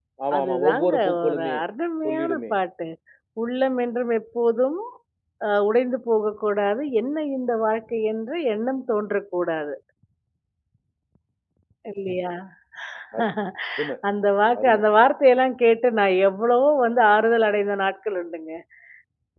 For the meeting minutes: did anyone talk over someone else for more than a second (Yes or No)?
Yes